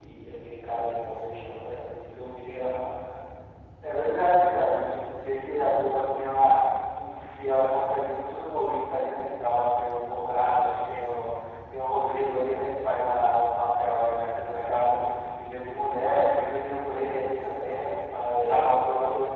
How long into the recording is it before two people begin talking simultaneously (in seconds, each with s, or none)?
18.1 s